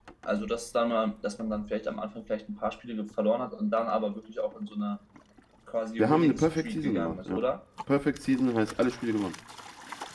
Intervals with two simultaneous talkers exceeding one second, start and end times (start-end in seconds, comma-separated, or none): 6.0-7.4